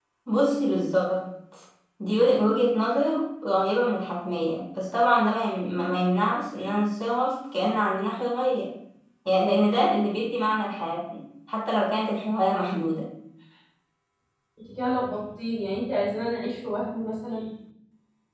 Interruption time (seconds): none

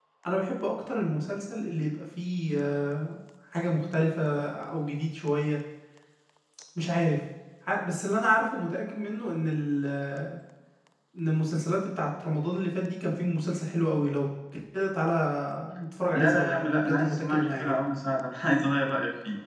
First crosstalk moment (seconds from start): 16 s

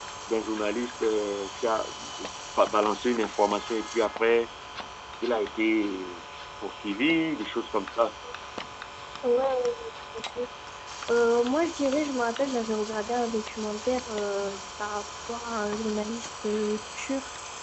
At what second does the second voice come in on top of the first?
none

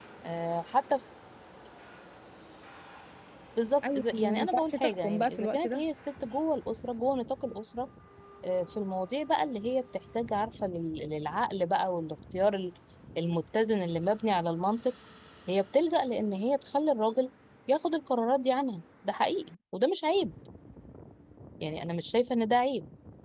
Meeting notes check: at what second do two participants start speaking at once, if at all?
4 s

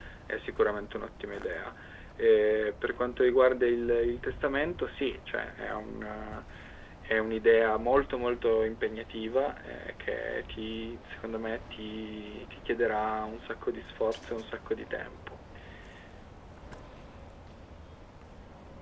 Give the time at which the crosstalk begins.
none

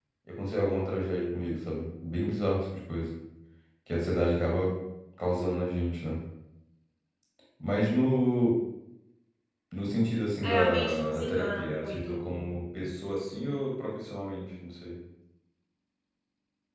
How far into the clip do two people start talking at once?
10 s

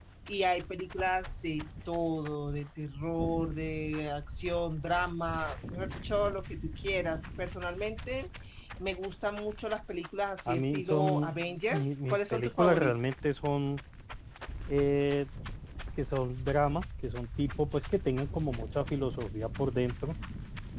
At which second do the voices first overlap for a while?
10 s

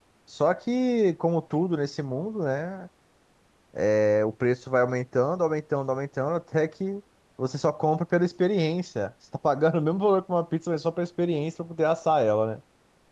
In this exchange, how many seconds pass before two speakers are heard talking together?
none

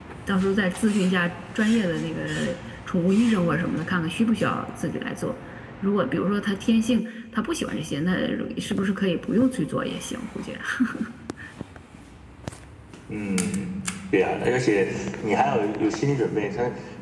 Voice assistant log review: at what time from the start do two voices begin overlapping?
none

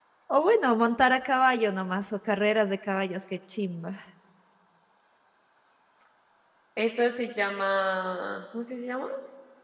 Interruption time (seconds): none

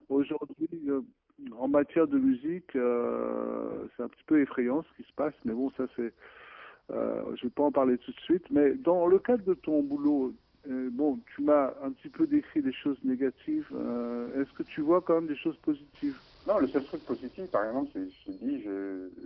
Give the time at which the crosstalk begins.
none

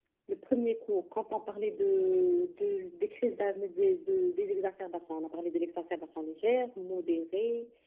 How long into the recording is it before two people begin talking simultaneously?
none

